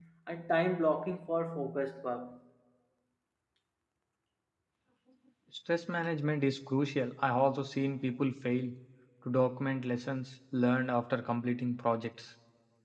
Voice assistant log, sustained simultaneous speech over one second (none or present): none